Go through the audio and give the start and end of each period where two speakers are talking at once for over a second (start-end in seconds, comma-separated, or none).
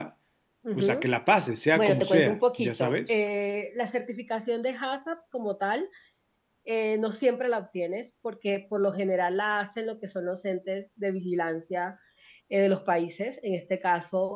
1.7-3.2